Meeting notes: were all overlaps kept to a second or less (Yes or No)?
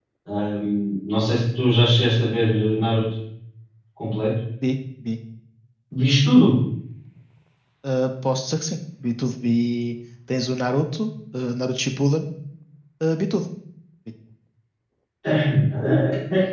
Yes